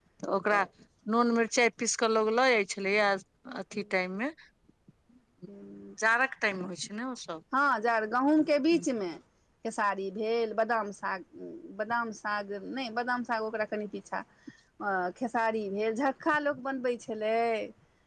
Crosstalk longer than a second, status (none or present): none